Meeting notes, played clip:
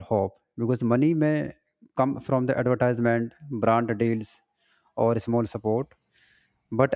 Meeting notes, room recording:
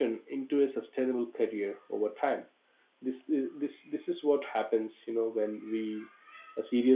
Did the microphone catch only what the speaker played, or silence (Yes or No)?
No